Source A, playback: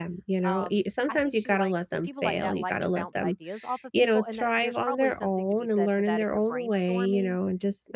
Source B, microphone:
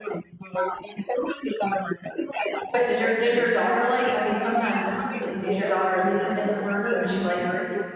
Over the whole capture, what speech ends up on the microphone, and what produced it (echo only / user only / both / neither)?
both